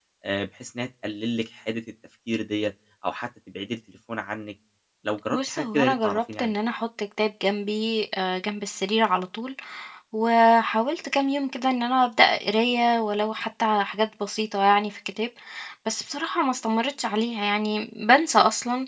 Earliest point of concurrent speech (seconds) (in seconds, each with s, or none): 5.3 s